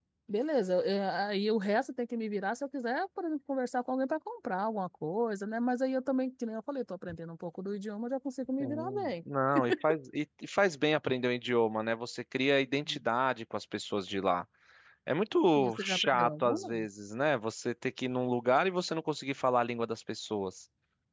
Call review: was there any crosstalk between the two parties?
Yes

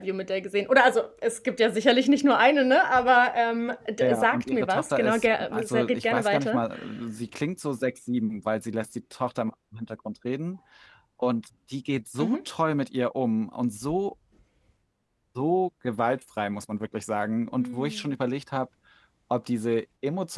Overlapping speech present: Yes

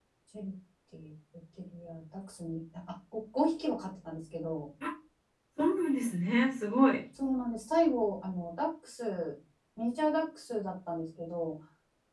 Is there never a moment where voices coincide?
Yes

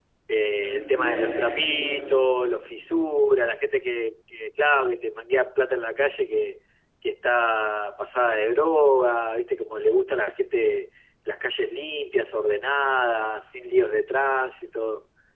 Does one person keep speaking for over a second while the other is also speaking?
Yes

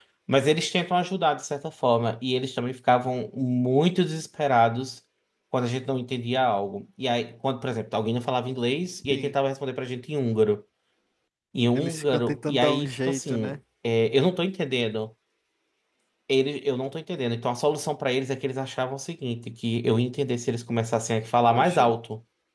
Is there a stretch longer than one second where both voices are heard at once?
Yes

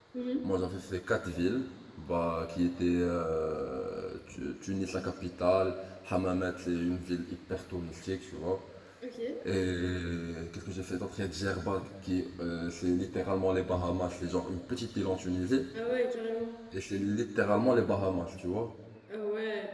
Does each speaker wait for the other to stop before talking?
Yes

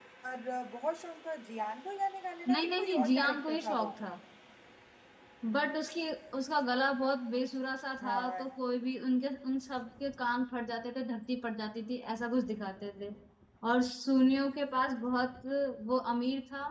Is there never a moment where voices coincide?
No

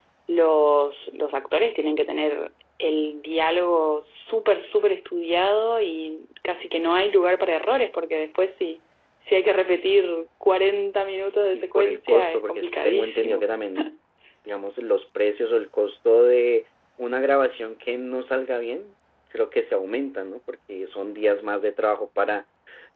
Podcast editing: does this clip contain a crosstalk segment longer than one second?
Yes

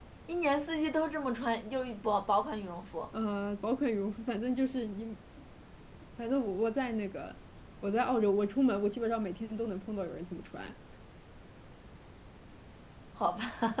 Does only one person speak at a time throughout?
Yes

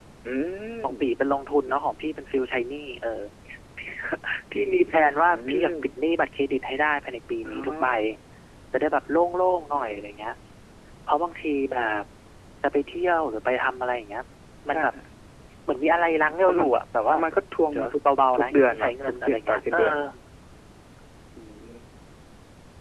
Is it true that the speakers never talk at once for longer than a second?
No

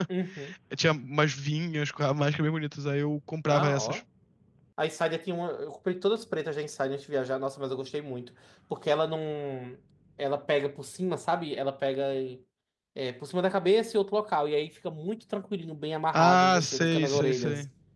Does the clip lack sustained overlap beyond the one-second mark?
No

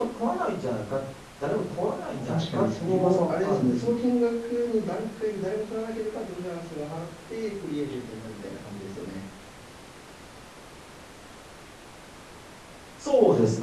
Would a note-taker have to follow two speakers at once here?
Yes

